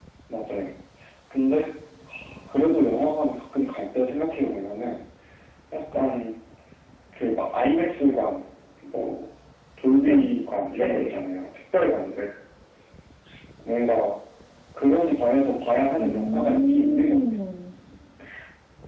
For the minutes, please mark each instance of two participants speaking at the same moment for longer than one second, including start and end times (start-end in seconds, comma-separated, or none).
16.0-17.2